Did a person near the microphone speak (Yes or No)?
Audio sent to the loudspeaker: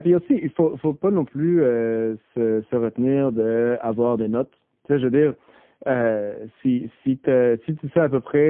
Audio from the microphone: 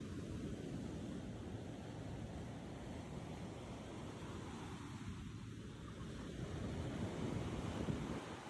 No